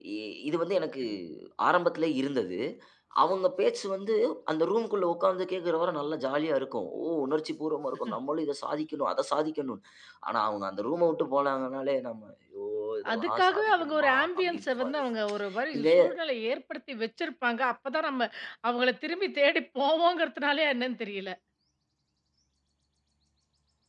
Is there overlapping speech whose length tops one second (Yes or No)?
Yes